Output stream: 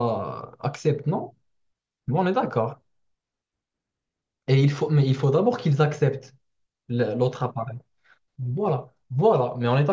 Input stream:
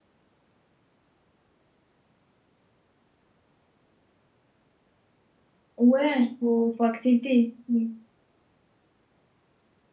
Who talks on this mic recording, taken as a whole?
user only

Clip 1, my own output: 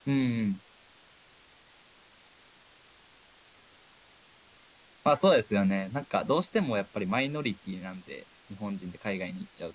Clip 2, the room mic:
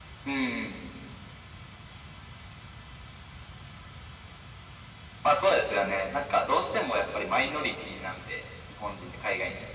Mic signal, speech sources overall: echo only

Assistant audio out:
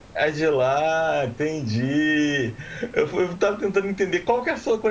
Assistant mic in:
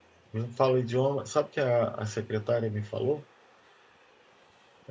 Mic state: user only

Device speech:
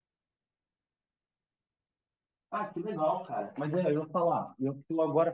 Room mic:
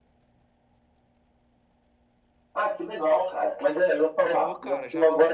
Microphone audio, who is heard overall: both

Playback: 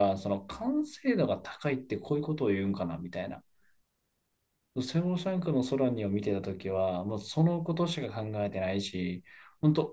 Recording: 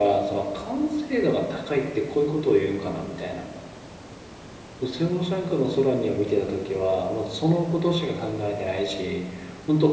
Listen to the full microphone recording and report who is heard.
echo only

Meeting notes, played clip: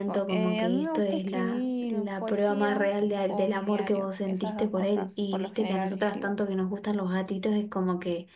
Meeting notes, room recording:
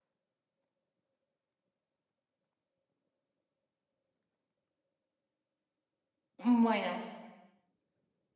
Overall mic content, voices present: user only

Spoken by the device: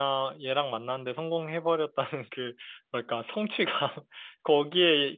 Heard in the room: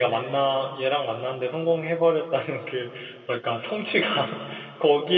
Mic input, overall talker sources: echo only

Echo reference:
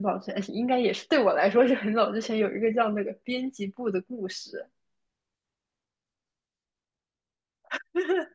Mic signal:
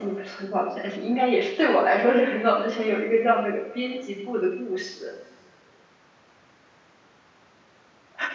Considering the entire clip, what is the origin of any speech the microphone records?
echo only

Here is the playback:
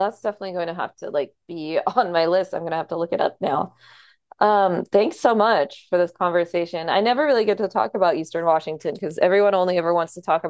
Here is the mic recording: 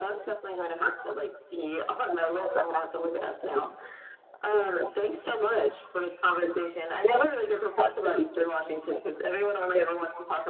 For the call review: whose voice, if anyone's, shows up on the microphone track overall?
echo only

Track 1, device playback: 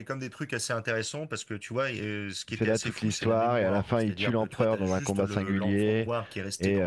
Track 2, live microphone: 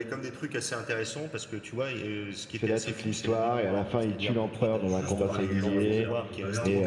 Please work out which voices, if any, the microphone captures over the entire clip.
both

